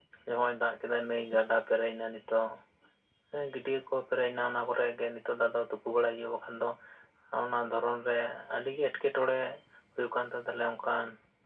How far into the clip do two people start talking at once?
none

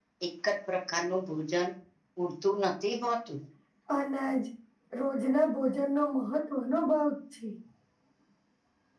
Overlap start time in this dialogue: none

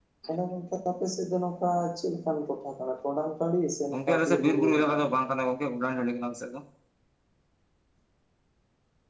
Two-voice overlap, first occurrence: 3.9 s

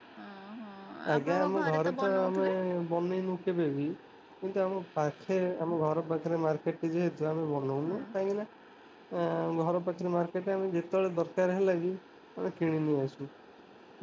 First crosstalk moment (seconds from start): 1.1 s

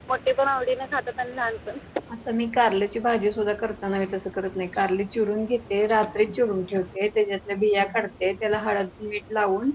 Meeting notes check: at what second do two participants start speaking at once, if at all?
none

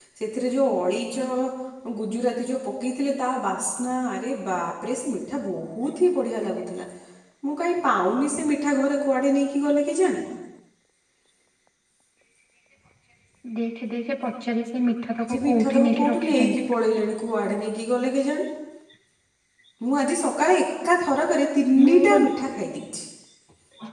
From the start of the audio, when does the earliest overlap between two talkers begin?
15.3 s

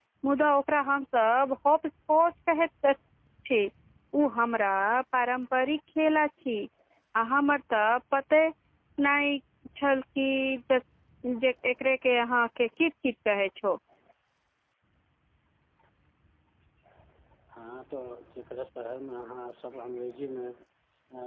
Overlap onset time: none

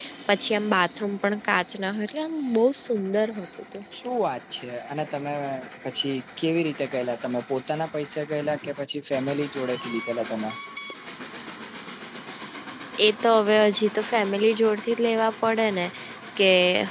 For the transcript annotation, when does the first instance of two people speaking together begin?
none

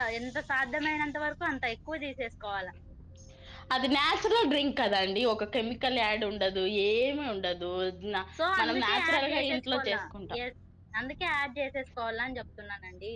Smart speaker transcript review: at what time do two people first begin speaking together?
8.6 s

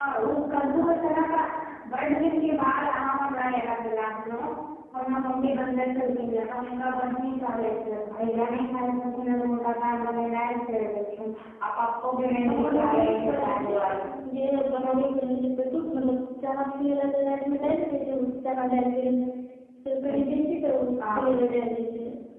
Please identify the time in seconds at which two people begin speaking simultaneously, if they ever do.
12.5 s

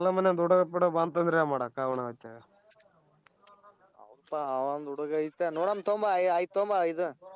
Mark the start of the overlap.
none

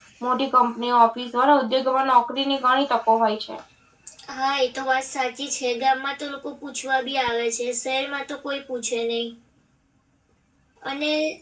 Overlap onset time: none

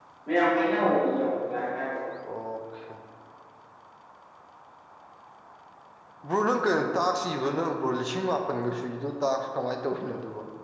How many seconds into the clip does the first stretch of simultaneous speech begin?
none

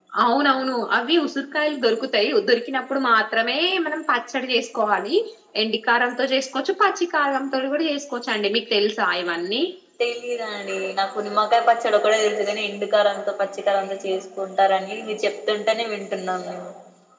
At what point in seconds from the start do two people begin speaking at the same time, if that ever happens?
none

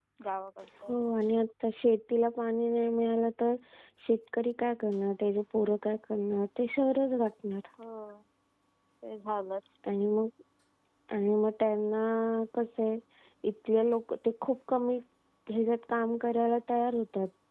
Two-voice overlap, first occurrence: none

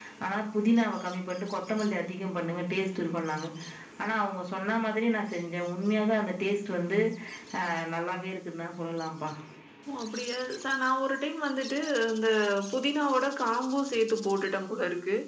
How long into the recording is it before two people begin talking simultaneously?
none

